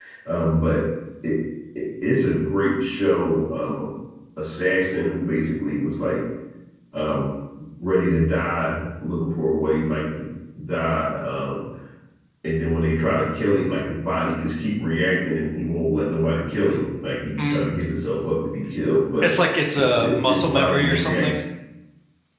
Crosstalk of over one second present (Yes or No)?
Yes